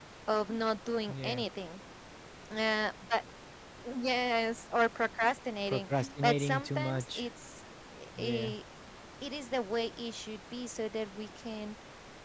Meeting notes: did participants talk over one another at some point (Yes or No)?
Yes